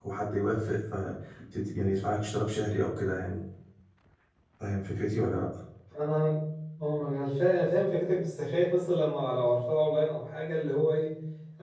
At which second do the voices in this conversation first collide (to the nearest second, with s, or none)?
none